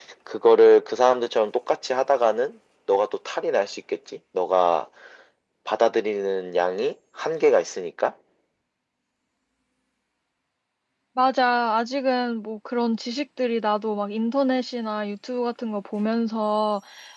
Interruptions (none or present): none